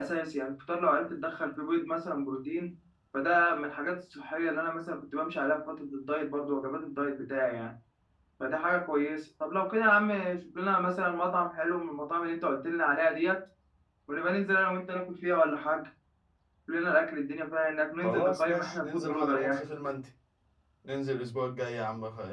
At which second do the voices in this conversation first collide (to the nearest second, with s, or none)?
18 s